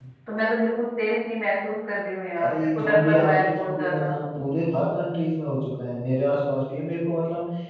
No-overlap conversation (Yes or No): No